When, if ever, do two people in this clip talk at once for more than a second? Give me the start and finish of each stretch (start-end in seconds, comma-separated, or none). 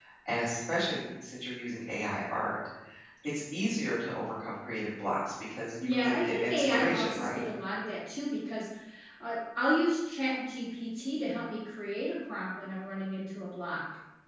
5.8-7.4